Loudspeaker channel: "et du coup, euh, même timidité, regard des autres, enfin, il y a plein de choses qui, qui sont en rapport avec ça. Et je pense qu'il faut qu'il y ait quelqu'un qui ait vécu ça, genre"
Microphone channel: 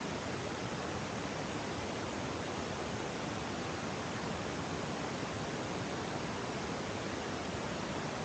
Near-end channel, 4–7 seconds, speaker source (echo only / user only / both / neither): neither